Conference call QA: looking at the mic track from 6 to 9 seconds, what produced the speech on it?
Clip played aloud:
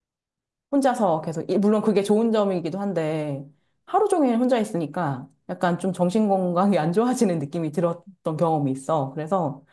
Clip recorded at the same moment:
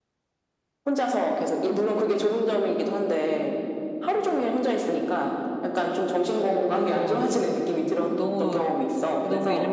both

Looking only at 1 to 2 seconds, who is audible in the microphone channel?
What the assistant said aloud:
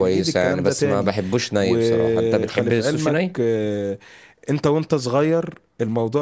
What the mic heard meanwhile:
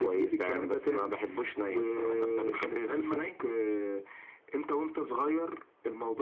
echo only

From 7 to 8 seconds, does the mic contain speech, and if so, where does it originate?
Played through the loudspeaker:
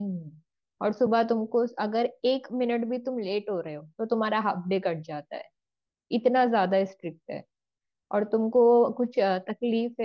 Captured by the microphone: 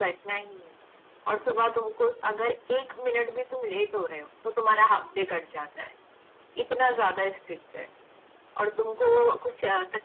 echo only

